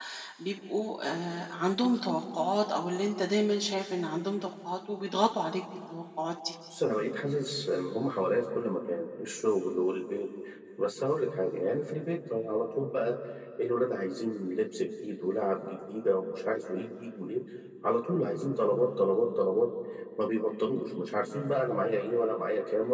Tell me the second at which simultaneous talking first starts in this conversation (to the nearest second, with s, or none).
none